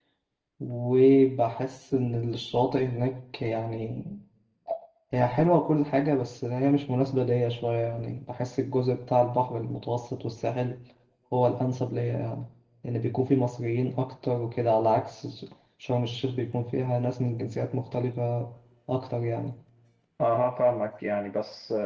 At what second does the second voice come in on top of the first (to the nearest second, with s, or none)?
none